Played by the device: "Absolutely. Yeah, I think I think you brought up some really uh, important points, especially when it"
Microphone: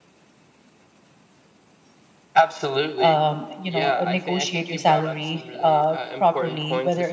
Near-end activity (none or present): present